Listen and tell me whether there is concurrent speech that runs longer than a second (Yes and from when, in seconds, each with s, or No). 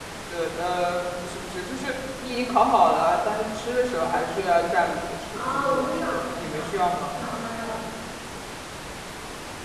Yes, from 5.3 s